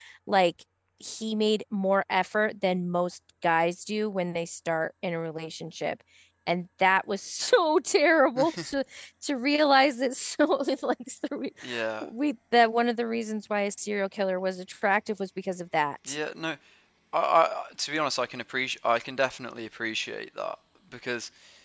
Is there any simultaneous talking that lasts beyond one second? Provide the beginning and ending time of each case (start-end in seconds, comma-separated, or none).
none